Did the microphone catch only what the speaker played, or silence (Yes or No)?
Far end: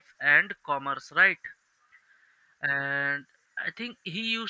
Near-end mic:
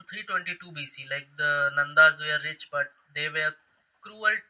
No